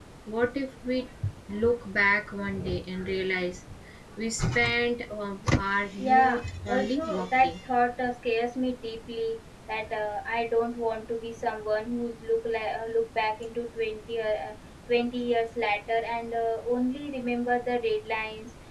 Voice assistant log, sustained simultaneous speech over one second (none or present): present